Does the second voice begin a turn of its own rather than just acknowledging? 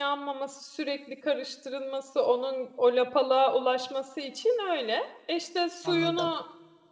No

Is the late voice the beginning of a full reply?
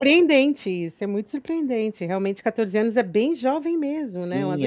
Yes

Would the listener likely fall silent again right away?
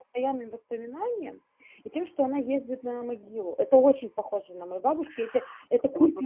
No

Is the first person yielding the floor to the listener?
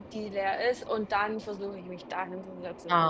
Yes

